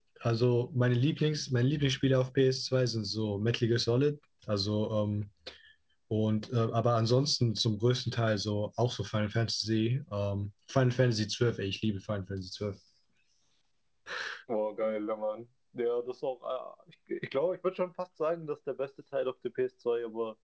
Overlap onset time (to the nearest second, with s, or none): none